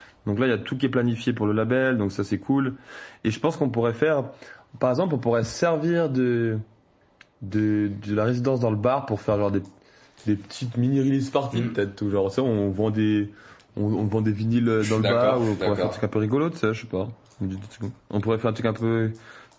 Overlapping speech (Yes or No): Yes